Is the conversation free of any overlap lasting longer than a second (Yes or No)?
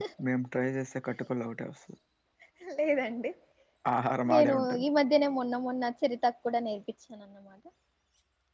Yes